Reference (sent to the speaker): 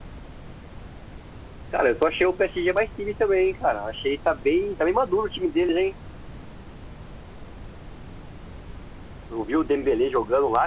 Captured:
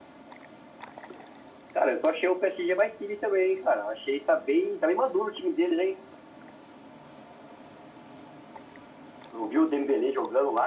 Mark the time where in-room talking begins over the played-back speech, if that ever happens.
none

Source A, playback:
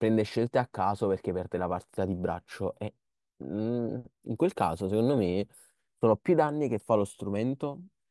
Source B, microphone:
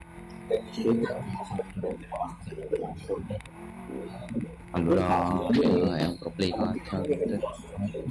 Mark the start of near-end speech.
4.7 s

